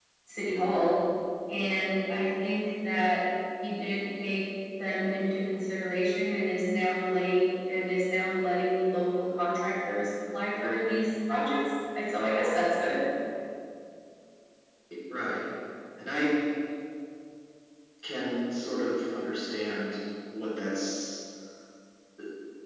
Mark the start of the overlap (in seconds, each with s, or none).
none